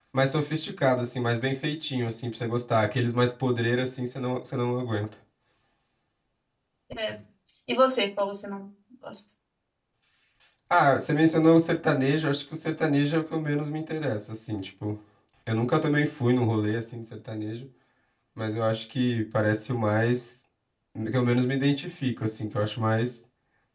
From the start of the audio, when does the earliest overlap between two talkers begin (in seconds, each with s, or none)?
none